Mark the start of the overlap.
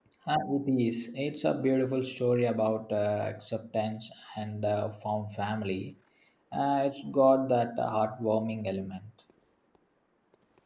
none

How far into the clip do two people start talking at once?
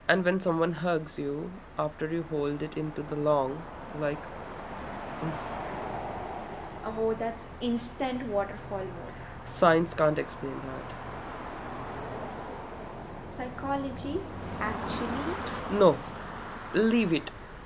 none

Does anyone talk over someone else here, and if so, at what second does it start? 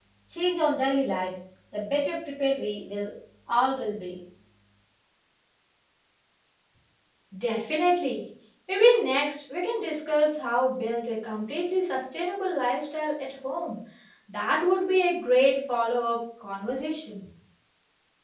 none

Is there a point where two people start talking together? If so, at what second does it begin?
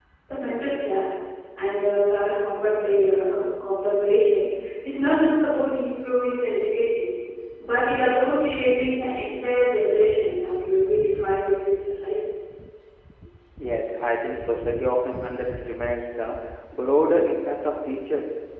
none

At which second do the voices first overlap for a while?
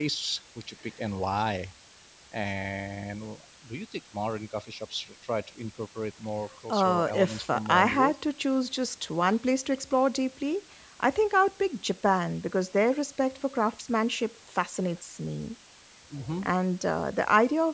7 s

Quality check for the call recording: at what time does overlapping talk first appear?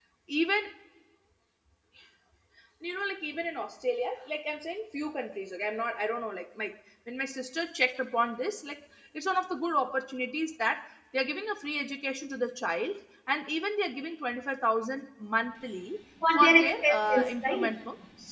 16 s

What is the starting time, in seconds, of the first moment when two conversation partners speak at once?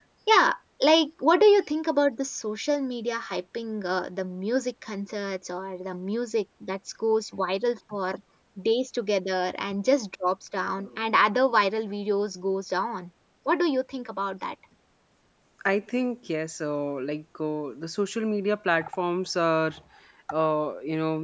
none

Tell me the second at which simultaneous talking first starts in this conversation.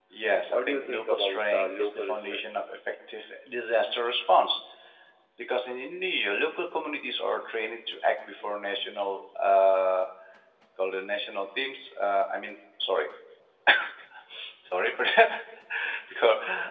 1 s

